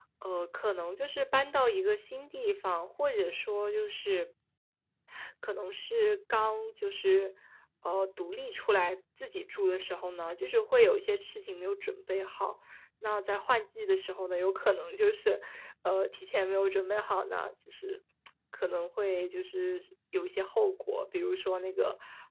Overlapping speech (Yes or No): No